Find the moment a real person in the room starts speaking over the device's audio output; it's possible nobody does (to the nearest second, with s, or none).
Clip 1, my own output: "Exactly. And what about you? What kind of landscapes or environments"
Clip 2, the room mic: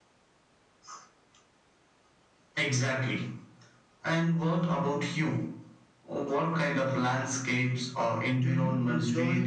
8 s